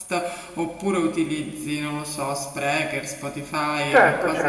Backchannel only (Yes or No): No